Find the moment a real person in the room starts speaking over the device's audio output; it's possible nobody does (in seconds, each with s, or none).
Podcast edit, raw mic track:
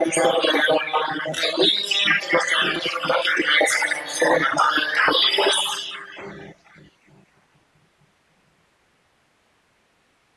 none